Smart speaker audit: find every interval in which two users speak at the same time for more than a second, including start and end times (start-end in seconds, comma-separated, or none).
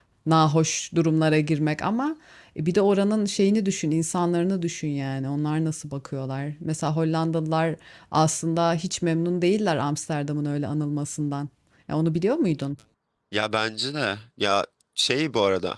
none